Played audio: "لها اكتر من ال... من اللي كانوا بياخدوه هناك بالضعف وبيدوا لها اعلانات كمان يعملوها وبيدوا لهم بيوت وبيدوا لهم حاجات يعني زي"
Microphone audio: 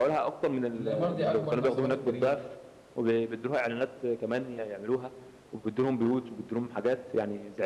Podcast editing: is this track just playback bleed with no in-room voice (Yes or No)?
No